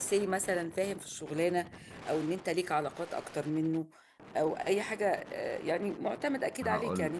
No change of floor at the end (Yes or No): Yes